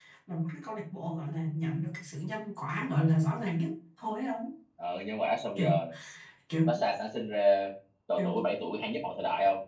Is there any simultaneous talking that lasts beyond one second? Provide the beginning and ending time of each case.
none

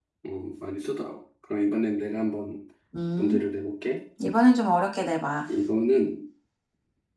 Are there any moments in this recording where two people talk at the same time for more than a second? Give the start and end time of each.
none

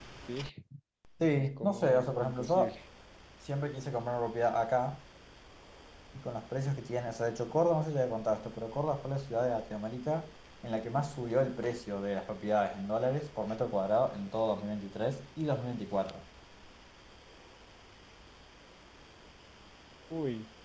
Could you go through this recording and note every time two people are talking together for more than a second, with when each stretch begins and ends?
1.4-2.8

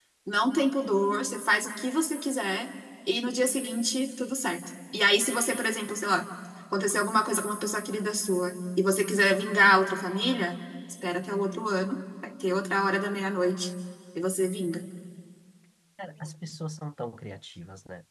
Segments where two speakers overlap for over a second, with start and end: none

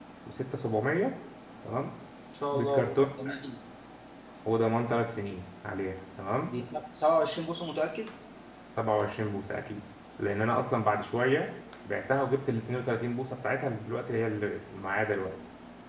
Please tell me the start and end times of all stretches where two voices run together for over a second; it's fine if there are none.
none

